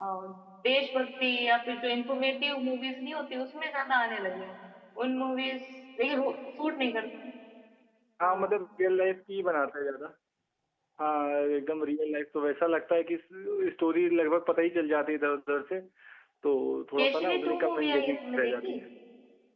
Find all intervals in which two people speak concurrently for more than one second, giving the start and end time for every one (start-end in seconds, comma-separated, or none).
17.0-18.8